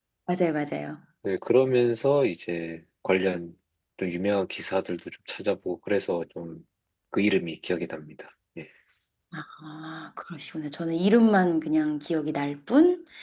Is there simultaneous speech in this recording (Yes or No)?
No